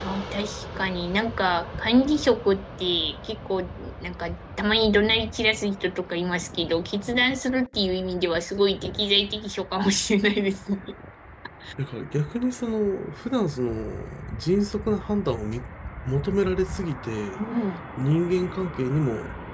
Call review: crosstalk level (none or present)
none